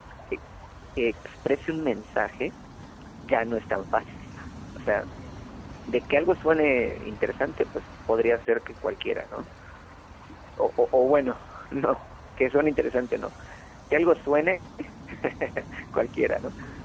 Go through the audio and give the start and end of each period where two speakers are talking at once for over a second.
none

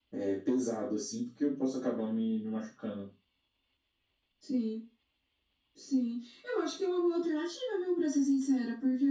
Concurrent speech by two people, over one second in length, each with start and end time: none

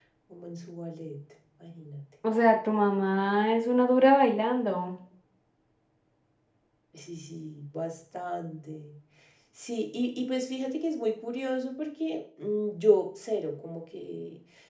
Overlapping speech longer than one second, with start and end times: none

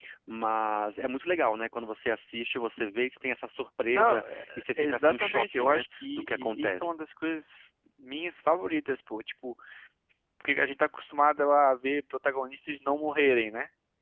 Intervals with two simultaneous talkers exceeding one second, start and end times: 3.9-6.9

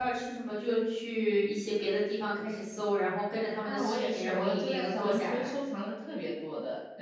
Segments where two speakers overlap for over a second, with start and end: 3.6-5.5

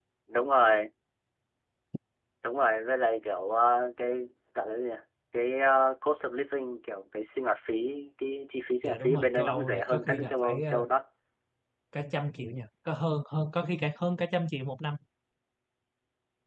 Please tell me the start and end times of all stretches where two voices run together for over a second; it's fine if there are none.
8.8-10.8

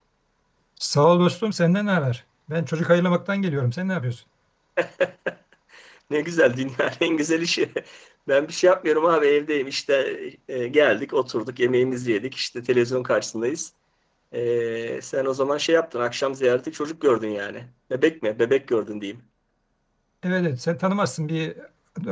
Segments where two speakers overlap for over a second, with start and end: none

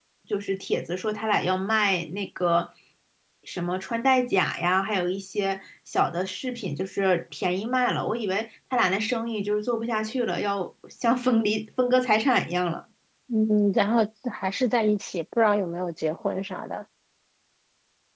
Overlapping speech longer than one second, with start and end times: none

